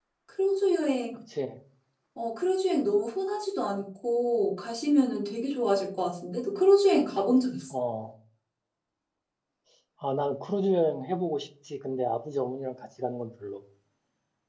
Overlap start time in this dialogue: none

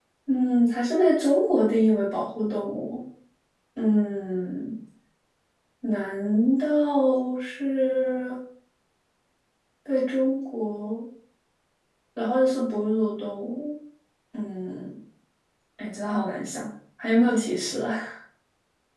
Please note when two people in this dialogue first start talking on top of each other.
none

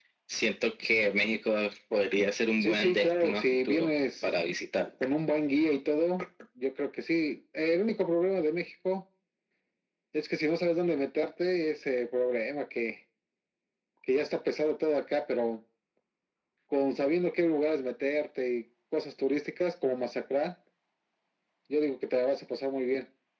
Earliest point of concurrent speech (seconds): 3 s

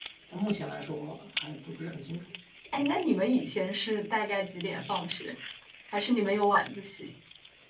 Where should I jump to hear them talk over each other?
none

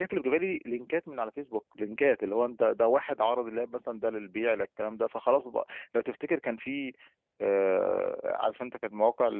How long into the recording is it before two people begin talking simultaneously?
none

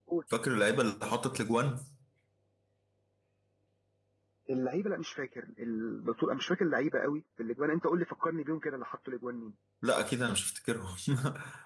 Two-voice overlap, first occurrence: none

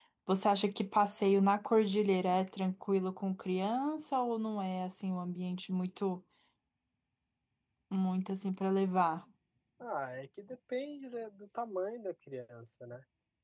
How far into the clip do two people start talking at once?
none

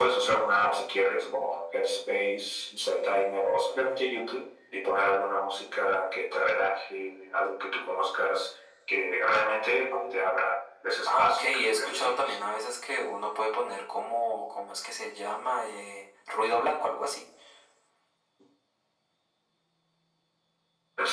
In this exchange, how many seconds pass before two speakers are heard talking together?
11 s

